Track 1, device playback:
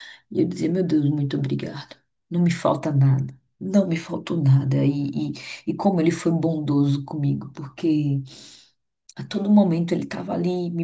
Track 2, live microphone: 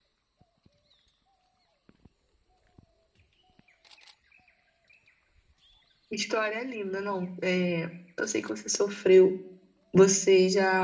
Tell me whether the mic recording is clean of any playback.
Yes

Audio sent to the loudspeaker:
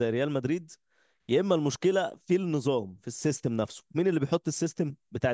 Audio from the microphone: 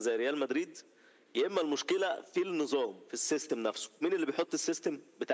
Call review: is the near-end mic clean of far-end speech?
No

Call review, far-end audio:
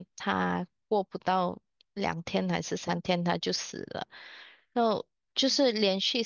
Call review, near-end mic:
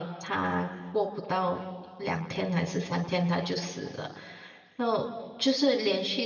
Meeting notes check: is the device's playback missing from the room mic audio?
No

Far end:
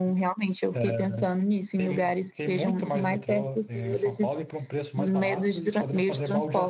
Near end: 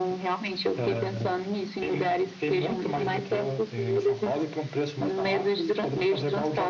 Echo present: Yes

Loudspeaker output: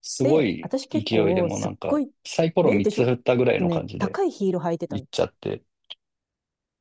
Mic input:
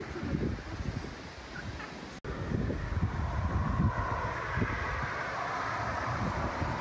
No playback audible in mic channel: Yes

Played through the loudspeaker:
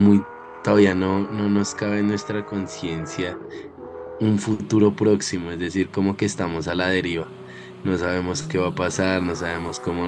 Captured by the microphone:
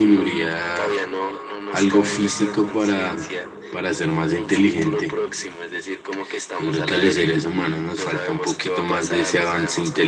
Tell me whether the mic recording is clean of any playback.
No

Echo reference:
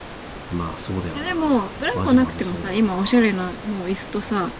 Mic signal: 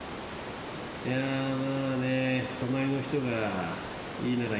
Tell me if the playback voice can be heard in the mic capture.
No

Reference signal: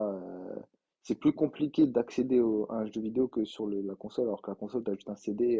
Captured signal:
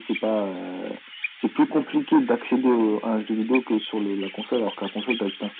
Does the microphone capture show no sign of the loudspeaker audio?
No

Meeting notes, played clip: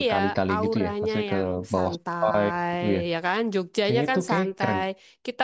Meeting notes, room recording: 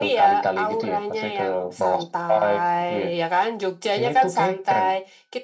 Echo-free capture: No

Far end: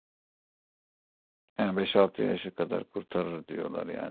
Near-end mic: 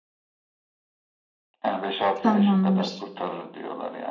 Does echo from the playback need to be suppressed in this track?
Yes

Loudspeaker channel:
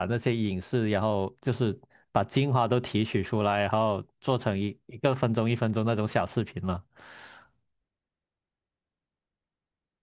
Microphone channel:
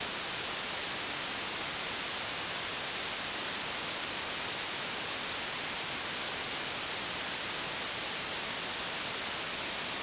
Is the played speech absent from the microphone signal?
Yes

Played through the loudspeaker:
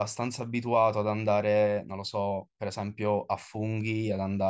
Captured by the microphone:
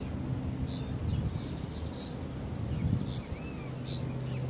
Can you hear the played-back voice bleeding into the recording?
No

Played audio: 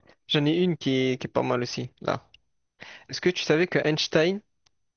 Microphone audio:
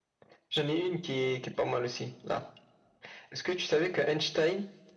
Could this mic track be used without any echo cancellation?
No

